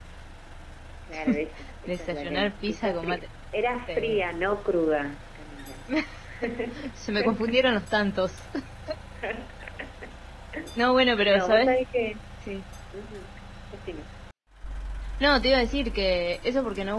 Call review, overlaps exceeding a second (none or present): present